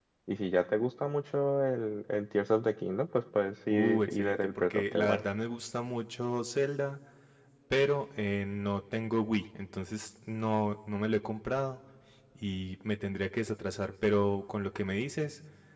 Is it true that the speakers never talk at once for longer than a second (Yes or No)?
No